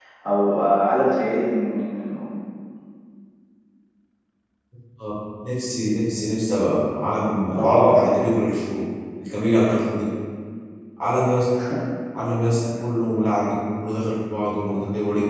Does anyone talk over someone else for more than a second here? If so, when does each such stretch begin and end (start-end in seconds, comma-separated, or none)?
none